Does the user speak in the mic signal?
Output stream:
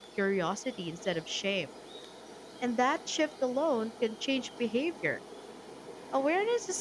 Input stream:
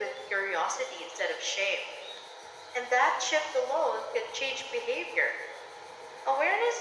No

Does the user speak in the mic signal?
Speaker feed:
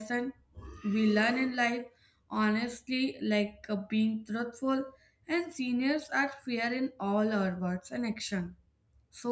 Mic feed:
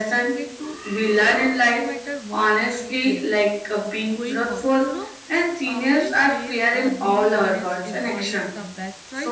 Yes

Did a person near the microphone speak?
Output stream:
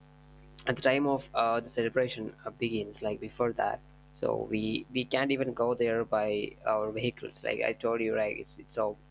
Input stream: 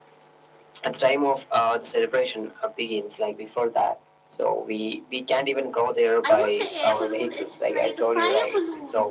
Yes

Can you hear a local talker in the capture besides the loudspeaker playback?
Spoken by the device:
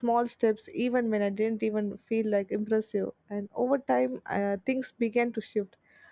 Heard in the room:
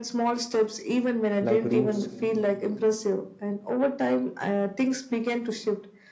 Yes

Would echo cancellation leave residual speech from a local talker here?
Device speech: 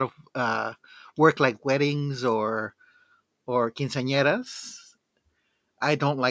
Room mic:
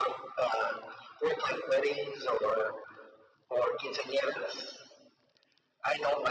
No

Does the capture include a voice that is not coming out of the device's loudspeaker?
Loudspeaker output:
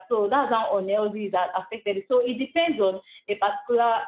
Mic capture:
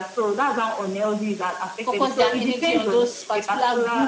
Yes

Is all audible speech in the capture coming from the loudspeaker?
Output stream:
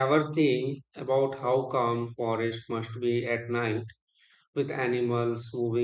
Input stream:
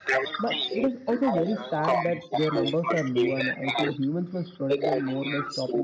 No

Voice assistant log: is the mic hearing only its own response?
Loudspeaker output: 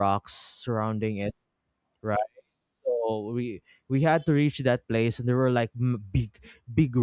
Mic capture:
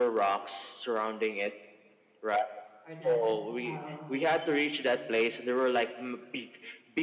No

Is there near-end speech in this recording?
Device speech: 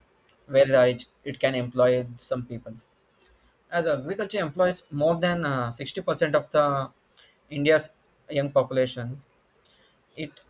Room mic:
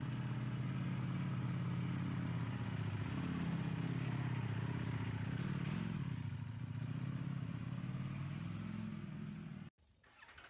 No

